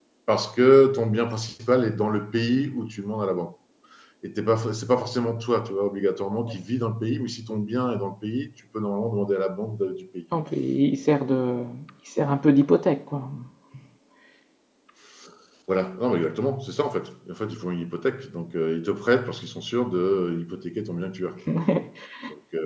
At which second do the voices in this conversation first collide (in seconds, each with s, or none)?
none